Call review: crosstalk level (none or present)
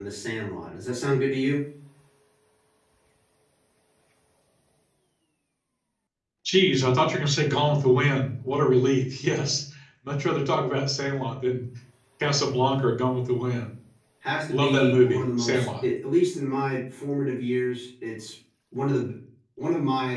present